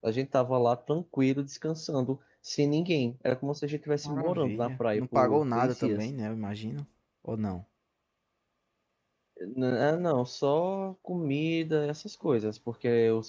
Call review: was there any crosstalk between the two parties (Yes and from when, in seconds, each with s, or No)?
Yes, from 3.9 s